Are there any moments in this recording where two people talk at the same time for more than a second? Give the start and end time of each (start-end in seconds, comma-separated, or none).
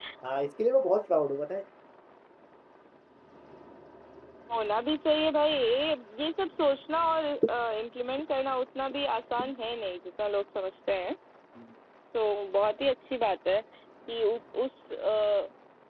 none